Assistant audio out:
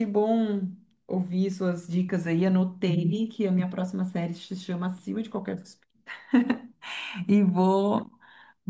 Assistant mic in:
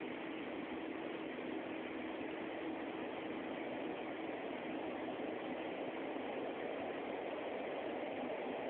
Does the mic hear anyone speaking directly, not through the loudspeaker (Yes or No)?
No